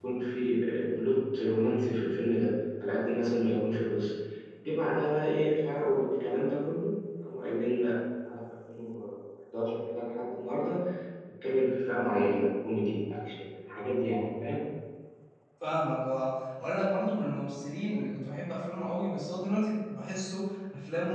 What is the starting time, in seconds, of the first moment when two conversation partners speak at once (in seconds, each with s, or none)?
none